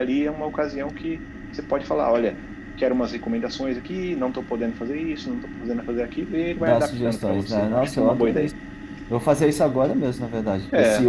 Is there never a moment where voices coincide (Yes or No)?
No